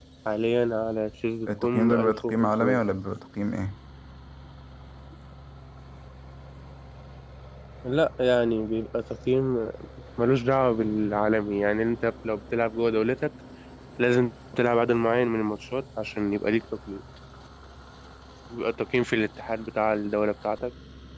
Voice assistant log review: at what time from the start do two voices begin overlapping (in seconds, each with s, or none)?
1.5 s